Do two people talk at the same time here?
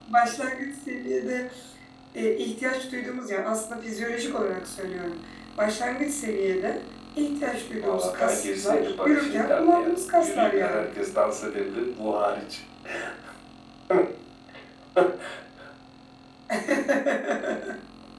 Yes, from 7.8 s

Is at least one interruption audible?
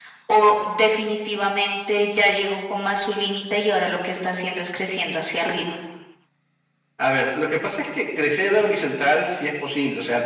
No

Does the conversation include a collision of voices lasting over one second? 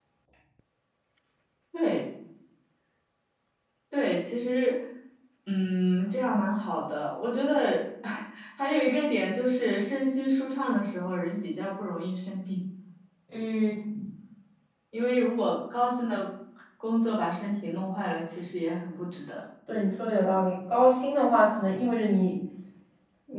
No

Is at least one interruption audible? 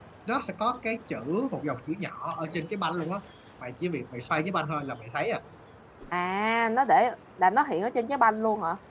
No

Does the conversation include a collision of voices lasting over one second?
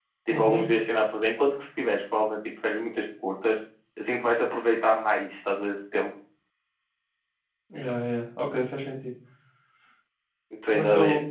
No

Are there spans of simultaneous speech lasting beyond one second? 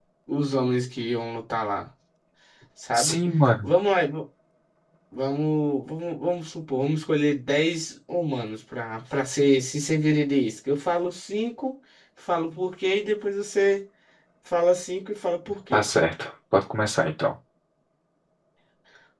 No

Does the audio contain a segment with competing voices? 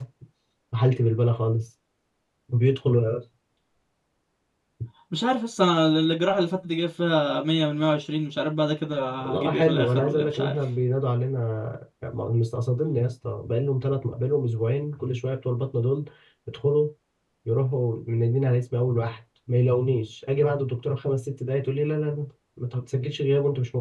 Yes, from 9.2 s

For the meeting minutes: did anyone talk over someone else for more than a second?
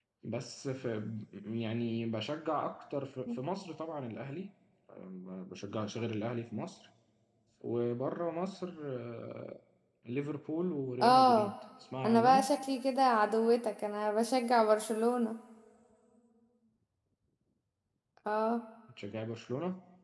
No

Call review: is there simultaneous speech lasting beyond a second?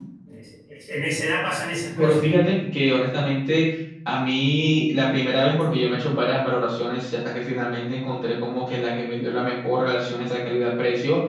No

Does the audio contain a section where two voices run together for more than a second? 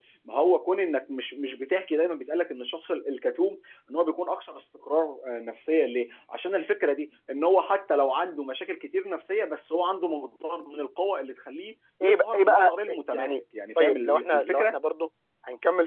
Yes, from 12.0 s

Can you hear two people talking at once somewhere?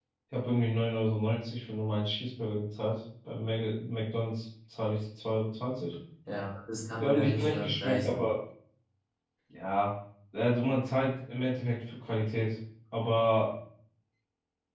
Yes, from 7.0 s

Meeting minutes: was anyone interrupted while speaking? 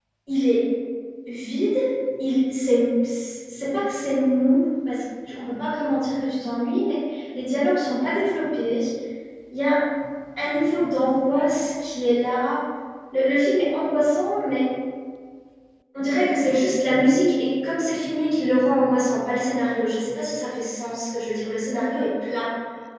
No

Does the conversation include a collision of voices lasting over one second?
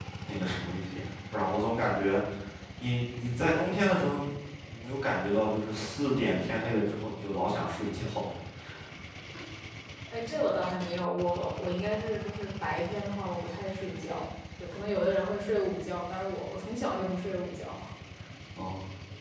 No

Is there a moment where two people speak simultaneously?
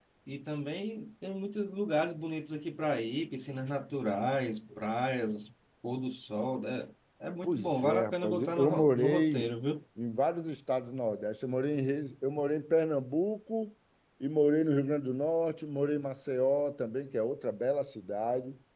Yes, from 7.4 s

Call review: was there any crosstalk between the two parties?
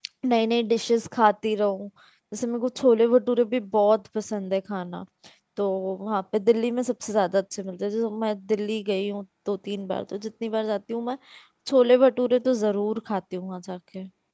No

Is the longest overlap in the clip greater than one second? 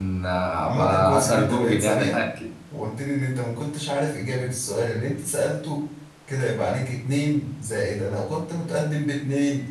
Yes, from 0.6 s

